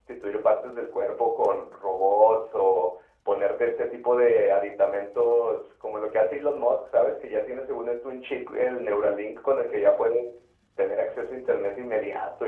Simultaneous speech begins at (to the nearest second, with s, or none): none